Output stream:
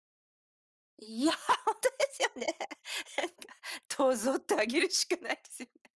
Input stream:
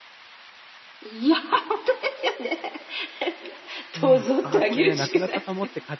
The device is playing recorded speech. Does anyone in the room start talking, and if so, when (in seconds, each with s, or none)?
3.9 s